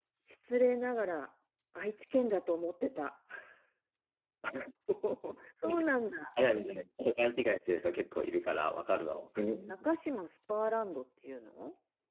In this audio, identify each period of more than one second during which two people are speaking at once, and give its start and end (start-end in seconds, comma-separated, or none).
none